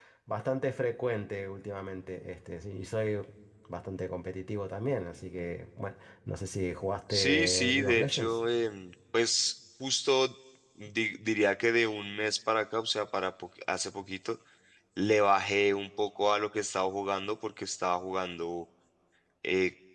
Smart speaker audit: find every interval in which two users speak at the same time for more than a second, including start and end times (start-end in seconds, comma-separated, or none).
7.1-8.4